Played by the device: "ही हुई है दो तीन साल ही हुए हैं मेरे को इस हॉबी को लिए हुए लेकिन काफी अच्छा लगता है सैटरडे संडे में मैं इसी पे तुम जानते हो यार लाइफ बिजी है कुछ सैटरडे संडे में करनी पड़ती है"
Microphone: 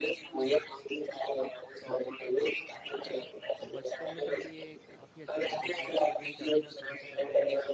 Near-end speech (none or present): present